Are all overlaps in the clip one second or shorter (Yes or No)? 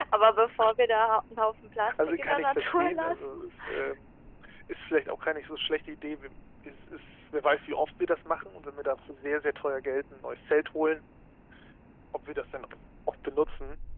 No